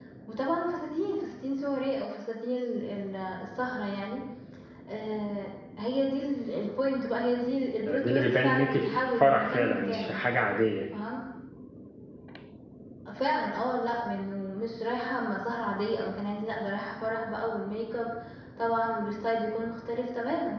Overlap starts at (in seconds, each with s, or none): 7.8 s